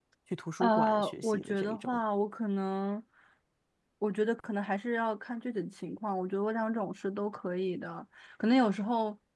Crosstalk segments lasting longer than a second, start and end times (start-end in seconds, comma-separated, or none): 0.6-2.0